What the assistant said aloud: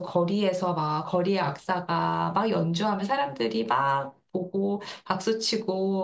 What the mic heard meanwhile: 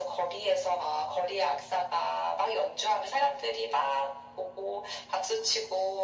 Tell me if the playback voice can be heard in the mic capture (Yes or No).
Yes